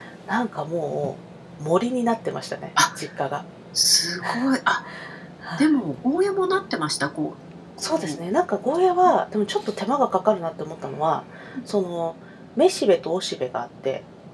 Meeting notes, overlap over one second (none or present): none